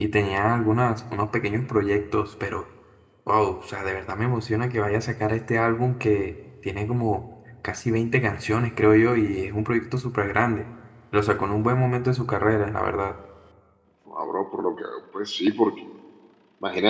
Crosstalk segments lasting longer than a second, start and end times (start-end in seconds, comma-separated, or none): none